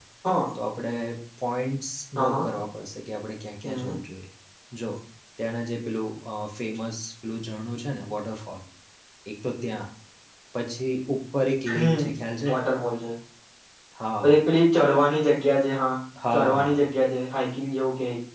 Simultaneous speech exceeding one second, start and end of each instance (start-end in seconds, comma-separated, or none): none